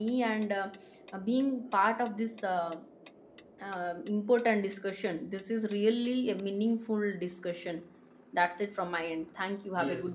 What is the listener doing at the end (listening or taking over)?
taking over